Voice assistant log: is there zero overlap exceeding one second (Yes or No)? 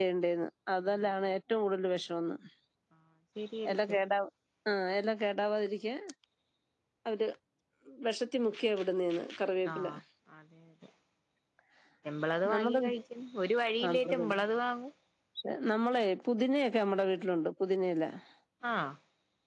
Yes